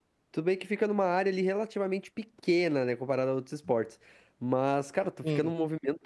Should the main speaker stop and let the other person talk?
No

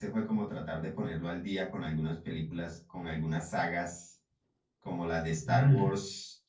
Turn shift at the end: No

